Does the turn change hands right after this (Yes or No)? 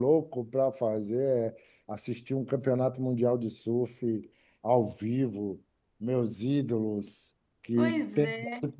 No